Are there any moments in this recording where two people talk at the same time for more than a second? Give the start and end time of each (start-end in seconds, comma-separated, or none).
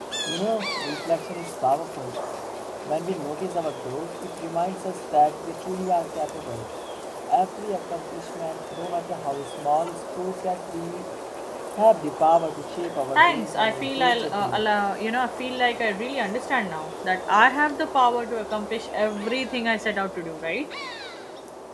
13.2-14.6